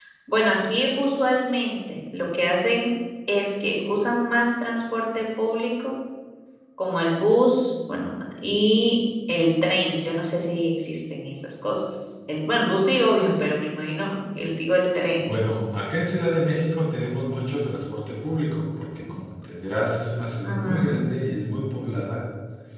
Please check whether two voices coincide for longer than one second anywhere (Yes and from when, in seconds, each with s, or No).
No